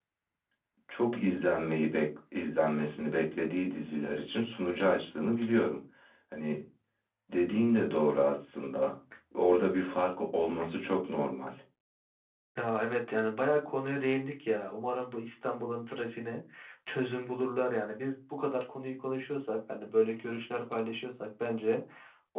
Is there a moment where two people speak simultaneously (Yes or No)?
No